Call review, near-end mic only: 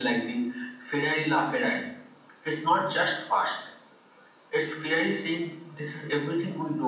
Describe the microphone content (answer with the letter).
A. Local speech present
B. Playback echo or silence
B